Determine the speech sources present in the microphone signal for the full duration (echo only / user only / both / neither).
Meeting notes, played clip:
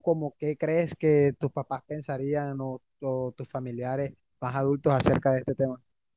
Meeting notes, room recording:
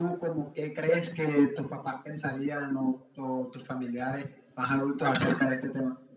echo only